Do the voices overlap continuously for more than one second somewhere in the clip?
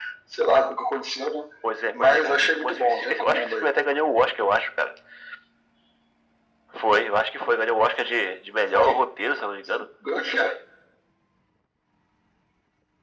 Yes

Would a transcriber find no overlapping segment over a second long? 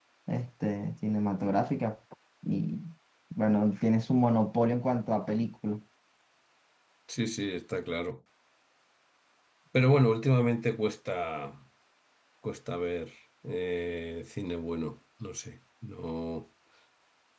Yes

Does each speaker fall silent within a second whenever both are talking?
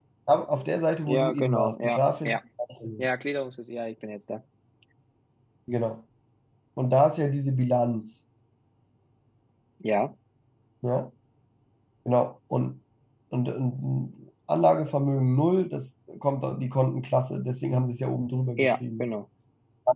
No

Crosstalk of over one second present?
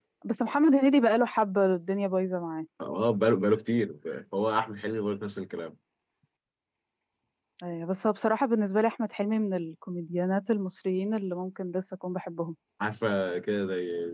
No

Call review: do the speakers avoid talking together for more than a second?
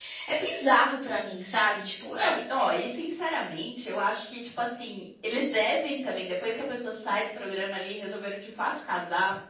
Yes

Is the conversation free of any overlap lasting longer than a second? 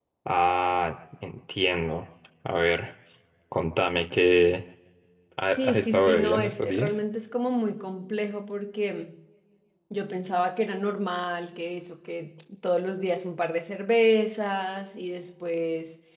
No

